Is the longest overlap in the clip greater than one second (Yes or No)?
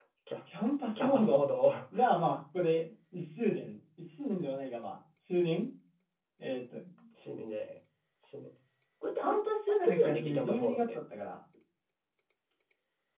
Yes